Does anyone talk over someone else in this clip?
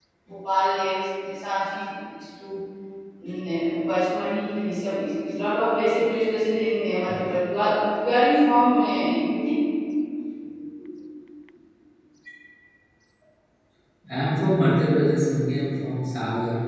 No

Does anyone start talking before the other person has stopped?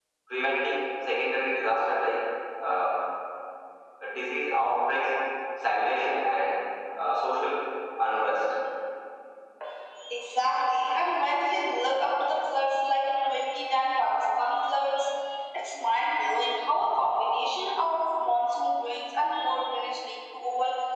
No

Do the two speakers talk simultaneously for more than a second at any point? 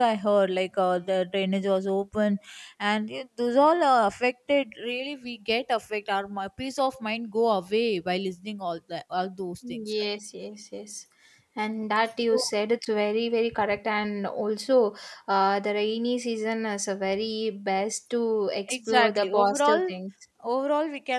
Yes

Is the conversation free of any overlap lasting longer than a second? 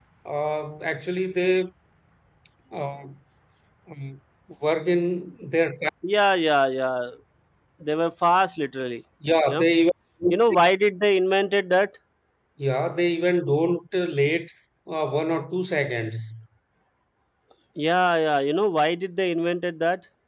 Yes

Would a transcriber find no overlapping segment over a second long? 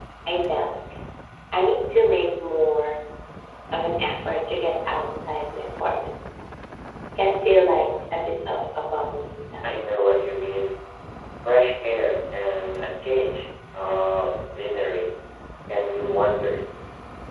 Yes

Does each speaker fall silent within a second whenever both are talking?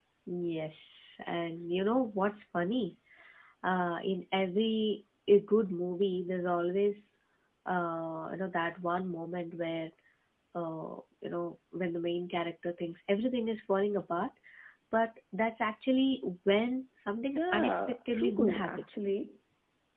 No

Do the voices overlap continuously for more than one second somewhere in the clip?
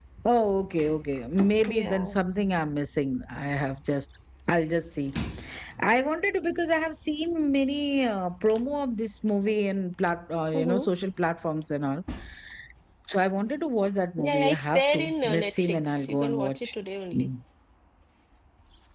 Yes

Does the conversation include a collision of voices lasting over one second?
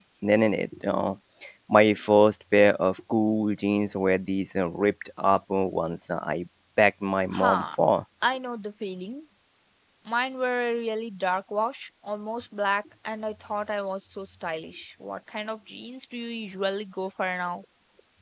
No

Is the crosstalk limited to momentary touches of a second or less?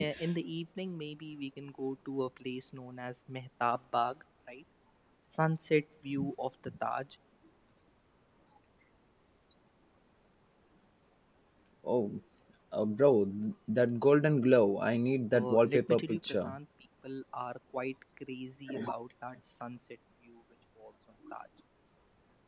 No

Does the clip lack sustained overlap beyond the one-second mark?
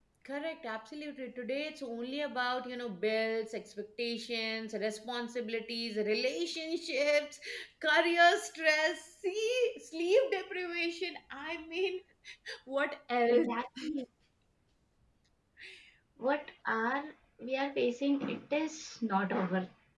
Yes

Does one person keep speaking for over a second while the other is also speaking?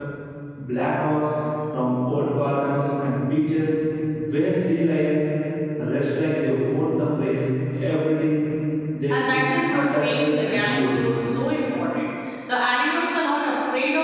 Yes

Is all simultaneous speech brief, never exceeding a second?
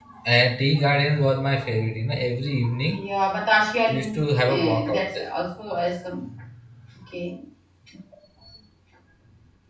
No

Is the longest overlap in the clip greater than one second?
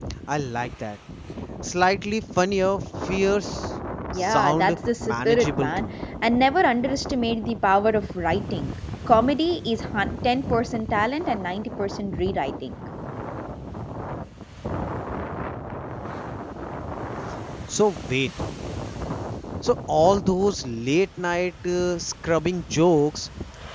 Yes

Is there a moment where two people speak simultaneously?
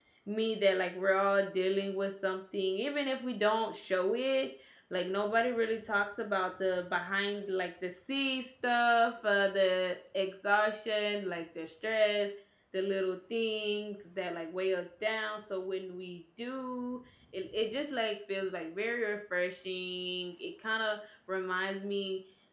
No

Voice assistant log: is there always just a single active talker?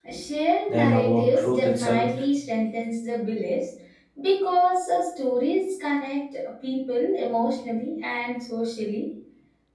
No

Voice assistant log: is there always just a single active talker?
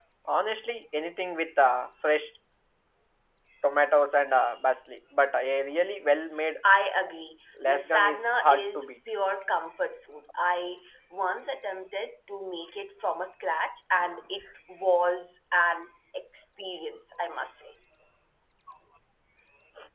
No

